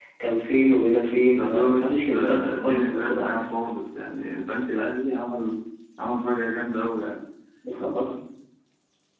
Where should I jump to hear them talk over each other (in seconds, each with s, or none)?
1.3 s